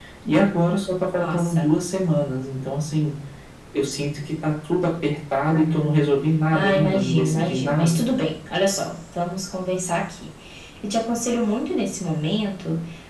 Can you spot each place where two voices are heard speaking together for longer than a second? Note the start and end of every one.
6.5-8.0

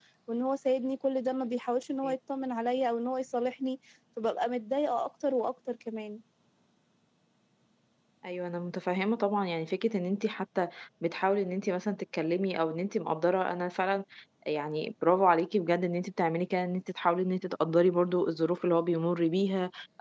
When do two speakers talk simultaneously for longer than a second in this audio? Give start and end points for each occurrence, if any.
none

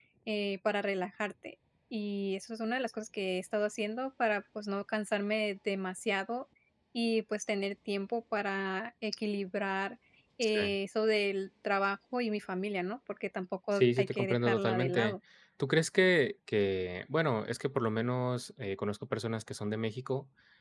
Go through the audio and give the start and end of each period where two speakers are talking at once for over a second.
13.7-15.2

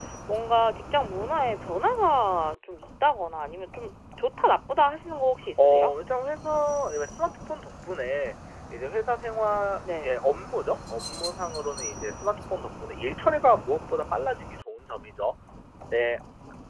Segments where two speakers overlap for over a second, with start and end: none

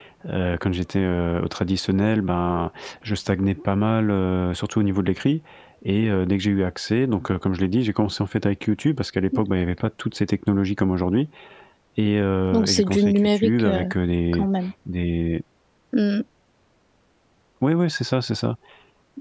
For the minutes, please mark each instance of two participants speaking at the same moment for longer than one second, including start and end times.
12.5-13.9

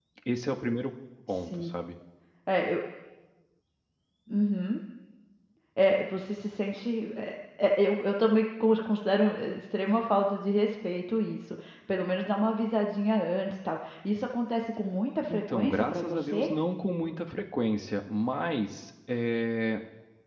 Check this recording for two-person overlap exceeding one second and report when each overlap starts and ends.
15.3-16.5

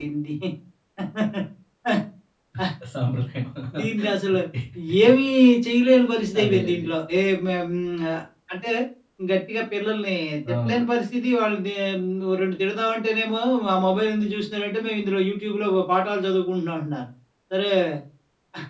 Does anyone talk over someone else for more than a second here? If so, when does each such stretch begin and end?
none

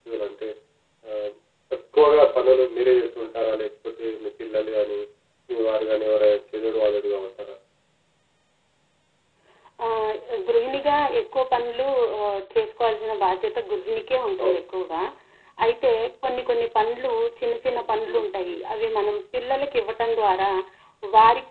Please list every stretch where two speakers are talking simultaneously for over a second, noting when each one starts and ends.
none

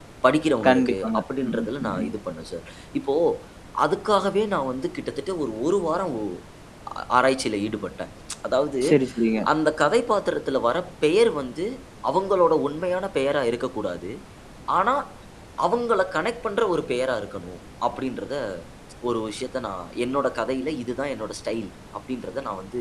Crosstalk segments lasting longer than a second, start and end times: 0.7-2.1

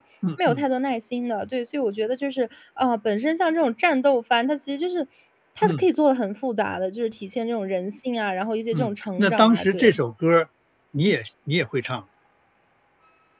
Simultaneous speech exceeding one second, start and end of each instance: 8.7-10.0

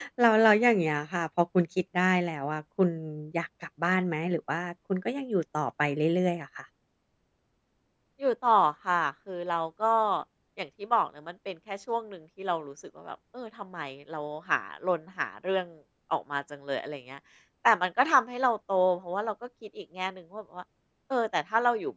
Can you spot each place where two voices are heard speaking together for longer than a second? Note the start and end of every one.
none

